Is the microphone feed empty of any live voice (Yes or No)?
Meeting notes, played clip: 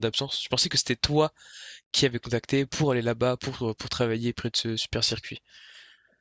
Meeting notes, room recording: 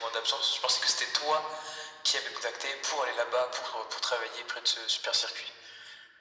Yes